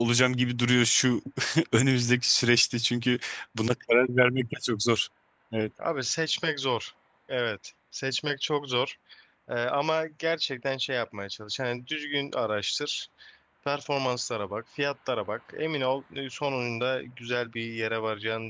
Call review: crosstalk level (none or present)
none